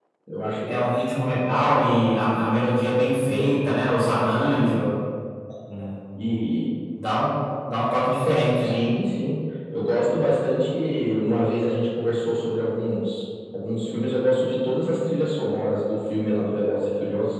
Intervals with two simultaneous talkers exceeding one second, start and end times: none

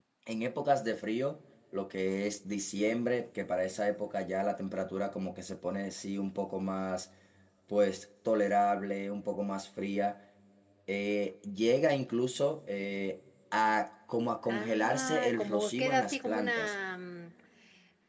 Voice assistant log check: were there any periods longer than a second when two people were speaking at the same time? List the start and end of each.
14.4-16.7

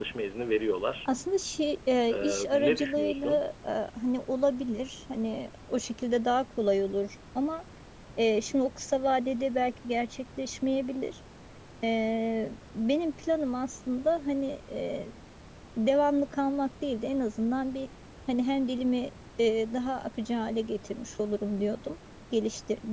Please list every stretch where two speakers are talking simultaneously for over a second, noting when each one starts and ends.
2.1-3.4

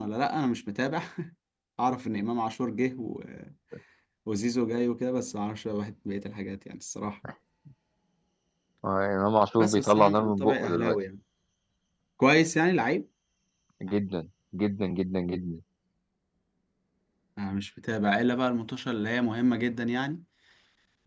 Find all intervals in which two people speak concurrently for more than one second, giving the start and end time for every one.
9.6-10.9

